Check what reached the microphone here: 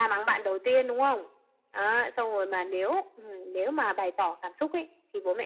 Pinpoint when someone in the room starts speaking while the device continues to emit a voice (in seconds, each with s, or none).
none